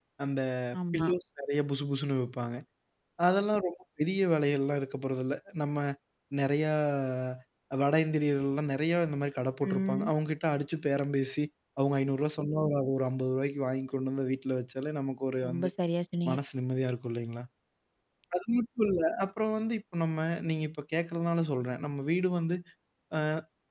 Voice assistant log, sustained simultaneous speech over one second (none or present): none